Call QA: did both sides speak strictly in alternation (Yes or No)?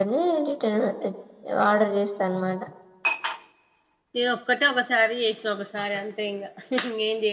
Yes